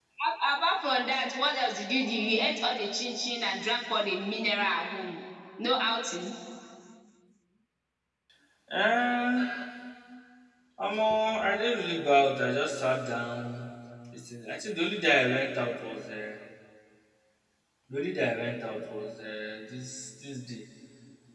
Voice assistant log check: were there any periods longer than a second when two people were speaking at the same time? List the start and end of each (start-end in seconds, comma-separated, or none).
none